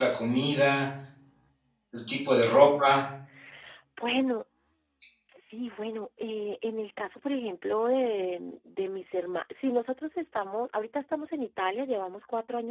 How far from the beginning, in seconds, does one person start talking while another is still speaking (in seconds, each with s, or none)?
none